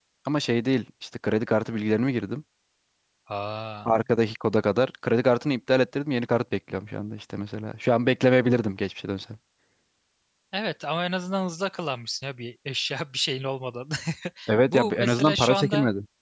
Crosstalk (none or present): present